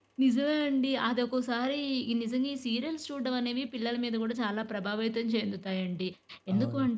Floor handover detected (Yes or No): No